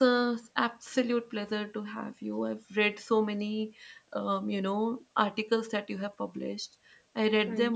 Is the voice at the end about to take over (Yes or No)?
No